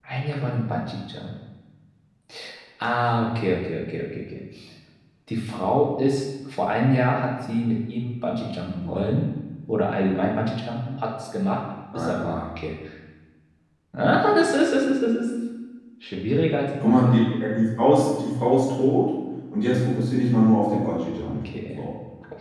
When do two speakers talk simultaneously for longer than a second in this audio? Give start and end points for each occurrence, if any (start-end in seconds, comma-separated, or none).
none